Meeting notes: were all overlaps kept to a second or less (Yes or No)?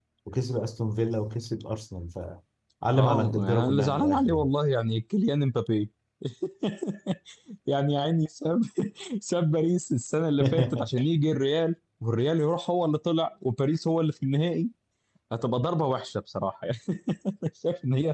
No